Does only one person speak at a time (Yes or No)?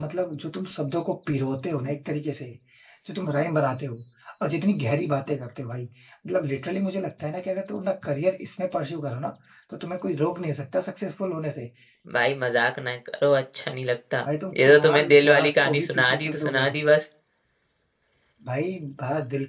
No